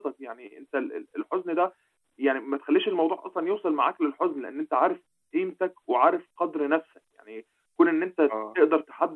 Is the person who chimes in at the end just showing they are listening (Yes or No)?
Yes